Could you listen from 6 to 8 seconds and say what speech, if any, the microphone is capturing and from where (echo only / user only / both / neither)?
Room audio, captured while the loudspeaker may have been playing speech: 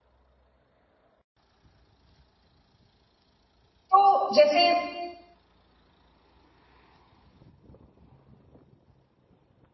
neither